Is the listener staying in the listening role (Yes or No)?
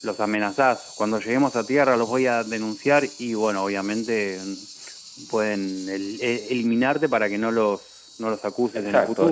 No